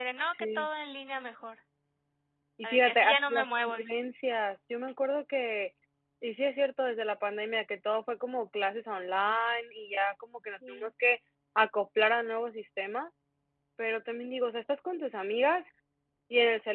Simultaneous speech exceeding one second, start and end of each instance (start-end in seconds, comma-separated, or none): 2.6-3.8